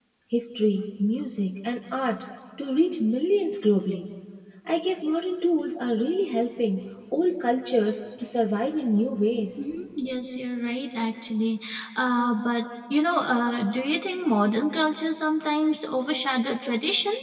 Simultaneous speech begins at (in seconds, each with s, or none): none